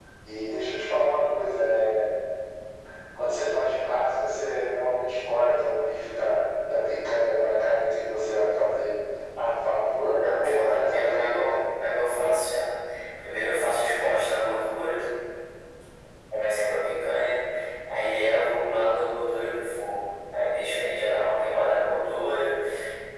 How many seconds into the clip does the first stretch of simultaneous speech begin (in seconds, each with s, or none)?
10.1 s